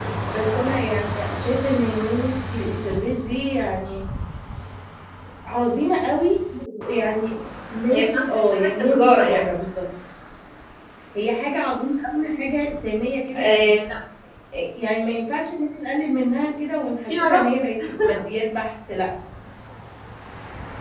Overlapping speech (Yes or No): Yes